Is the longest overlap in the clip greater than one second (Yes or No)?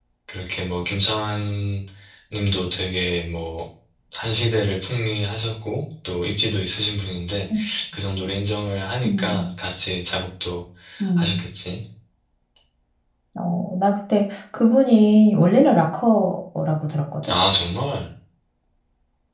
No